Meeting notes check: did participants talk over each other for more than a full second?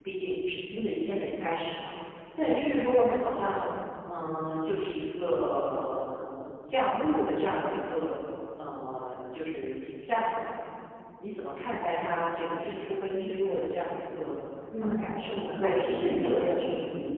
Yes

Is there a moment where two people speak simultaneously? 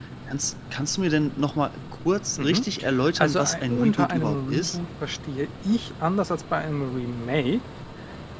Yes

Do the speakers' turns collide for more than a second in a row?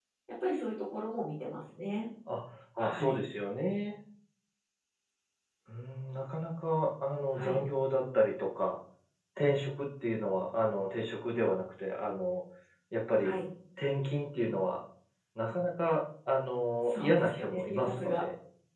Yes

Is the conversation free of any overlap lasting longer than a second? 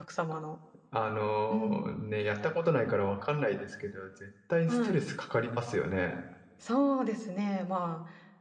Yes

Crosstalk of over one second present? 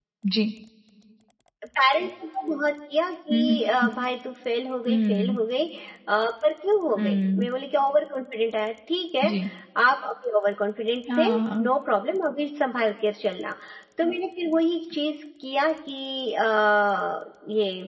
No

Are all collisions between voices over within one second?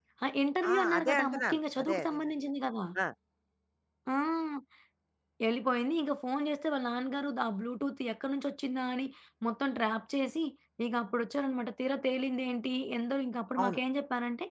No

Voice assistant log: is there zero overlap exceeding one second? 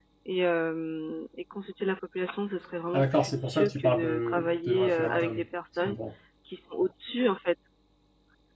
No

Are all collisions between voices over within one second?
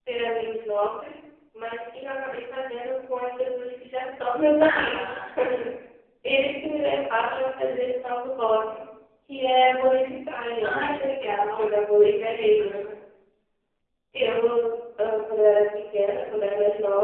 Yes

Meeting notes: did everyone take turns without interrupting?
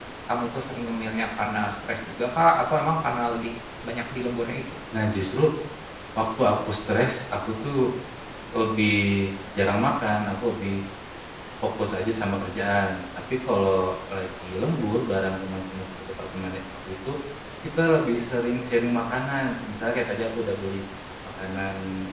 Yes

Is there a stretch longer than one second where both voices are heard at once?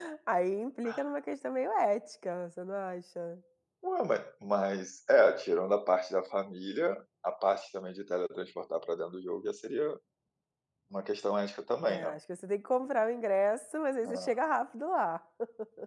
No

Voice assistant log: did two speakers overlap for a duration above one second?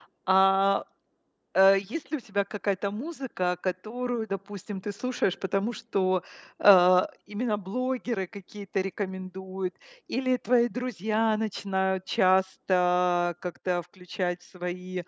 No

